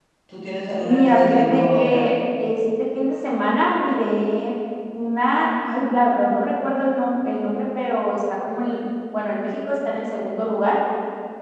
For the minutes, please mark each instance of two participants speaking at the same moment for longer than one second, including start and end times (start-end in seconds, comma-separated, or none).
0.8-2.1